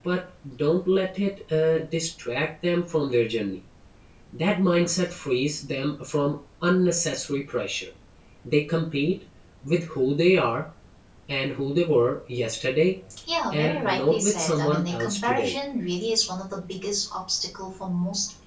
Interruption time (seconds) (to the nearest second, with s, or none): 14 s